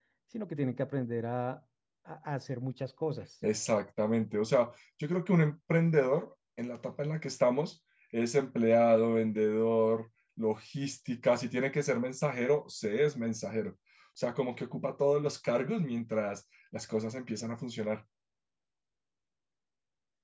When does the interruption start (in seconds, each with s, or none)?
none